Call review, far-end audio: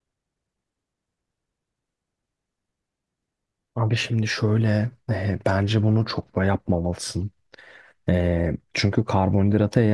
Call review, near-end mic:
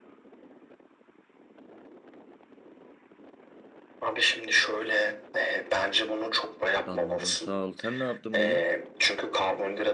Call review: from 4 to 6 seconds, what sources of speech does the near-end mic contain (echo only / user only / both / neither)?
echo only